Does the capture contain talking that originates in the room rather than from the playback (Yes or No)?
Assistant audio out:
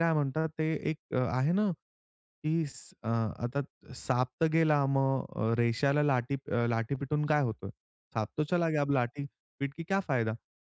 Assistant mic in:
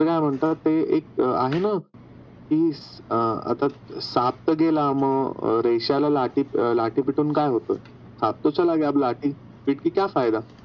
No